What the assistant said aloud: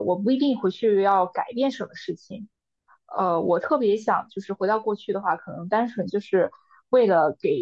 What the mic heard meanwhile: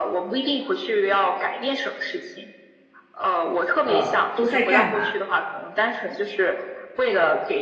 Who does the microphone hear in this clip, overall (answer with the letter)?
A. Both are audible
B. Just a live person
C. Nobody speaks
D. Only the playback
A